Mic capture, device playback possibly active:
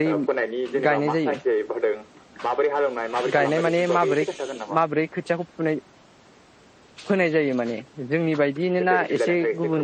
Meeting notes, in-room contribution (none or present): present